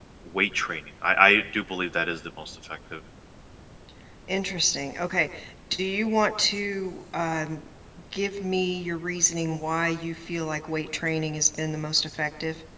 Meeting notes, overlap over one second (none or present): none